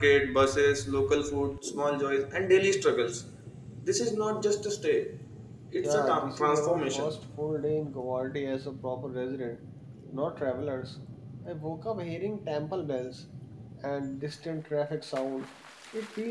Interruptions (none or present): present